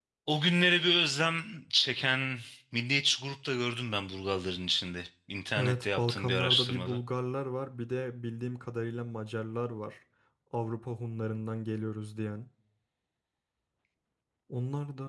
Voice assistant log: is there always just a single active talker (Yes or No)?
No